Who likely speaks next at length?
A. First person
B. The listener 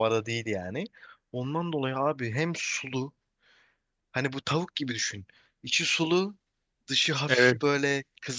A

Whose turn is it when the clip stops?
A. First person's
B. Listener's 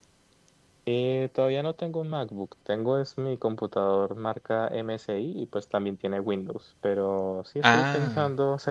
A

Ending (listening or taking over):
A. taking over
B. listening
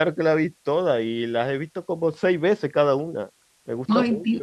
A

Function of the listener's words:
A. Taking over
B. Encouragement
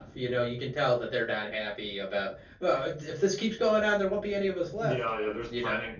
A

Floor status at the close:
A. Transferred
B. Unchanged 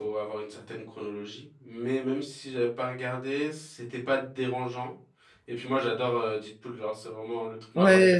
A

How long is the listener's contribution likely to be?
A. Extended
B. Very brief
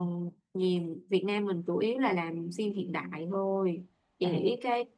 B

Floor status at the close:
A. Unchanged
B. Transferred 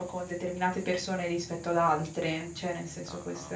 B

